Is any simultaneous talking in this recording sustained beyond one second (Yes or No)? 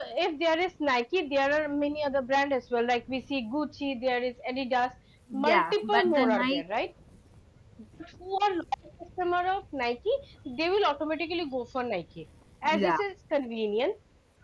Yes